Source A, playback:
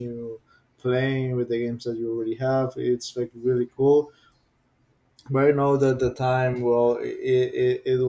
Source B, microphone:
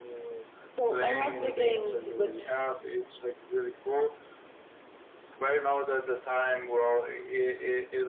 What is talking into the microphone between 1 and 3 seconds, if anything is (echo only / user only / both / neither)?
both